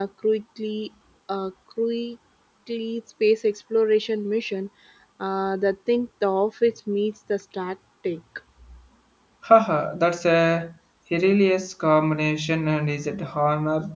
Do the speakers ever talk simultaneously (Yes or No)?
No